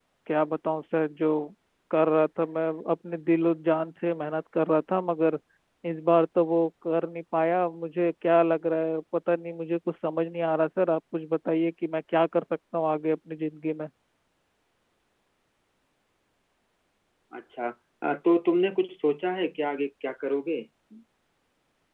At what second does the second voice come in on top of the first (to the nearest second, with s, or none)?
none